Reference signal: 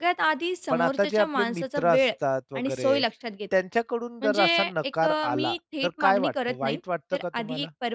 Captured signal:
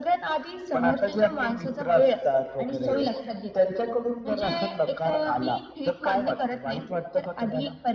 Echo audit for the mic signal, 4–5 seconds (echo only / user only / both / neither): echo only